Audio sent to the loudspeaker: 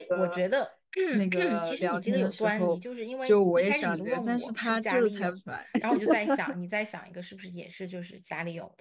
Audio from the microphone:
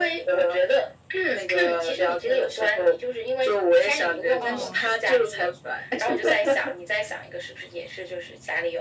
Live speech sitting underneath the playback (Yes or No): Yes